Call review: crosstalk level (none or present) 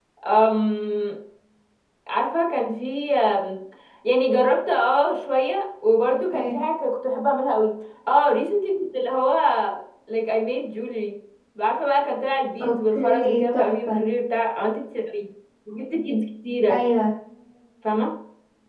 present